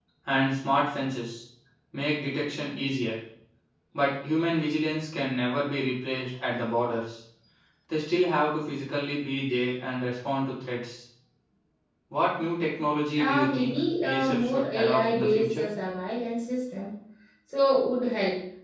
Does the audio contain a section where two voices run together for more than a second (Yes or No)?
Yes